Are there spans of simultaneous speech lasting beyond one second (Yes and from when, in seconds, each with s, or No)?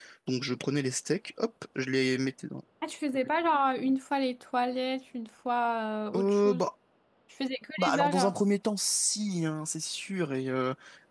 No